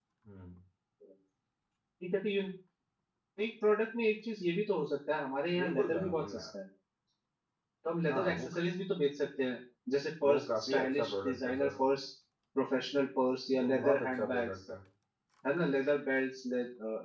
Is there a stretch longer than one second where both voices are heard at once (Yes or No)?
Yes